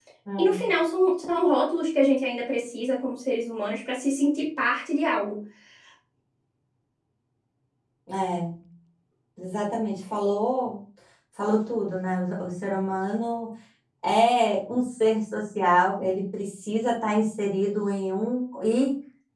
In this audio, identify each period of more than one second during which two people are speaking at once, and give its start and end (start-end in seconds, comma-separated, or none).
none